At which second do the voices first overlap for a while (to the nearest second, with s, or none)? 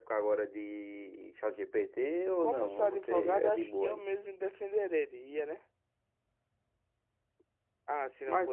2 s